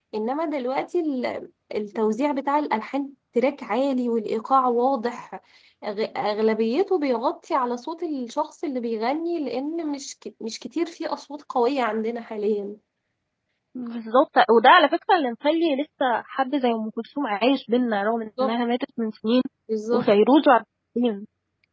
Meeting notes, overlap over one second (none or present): none